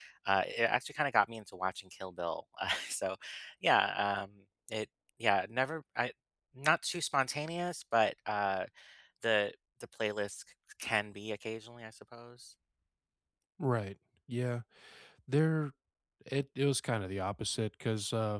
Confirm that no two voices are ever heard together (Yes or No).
Yes